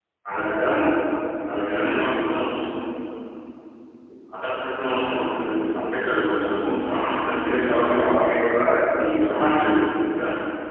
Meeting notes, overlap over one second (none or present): present